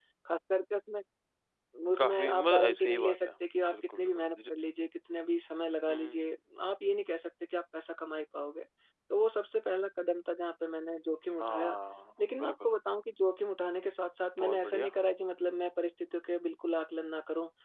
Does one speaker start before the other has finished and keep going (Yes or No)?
Yes